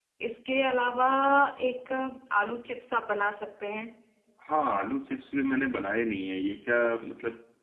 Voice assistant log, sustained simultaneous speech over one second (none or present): none